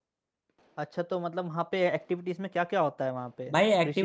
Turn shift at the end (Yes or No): Yes